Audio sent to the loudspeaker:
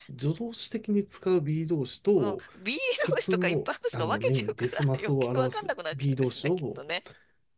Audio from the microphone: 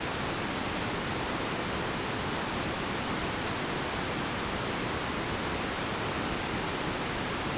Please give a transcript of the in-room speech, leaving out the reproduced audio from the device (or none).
none